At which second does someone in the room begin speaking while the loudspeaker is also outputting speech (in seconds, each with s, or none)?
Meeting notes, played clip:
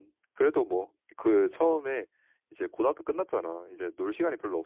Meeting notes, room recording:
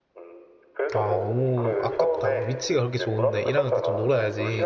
0.9 s